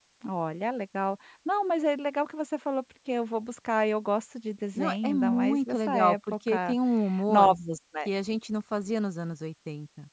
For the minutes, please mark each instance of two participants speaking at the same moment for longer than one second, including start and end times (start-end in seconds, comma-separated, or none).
4.8-6.8